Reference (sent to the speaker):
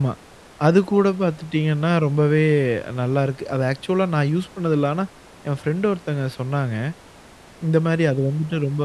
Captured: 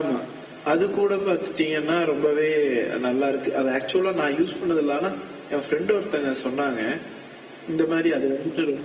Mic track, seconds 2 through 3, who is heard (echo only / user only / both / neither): echo only